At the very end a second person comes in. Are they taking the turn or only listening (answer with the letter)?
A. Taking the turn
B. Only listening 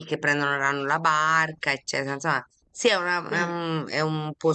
B